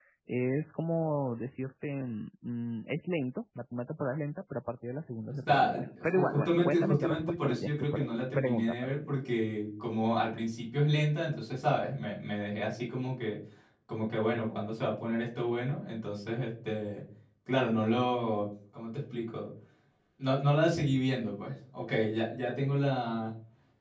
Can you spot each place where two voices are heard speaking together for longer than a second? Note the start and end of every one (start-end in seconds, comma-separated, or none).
5.5-8.9